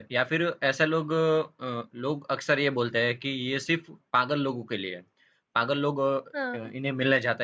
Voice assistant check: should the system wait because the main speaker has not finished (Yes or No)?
Yes